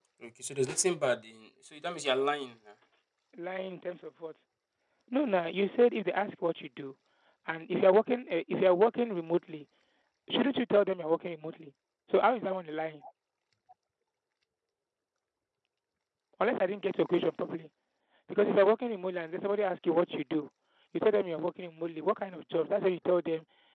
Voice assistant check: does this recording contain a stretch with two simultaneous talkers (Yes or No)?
No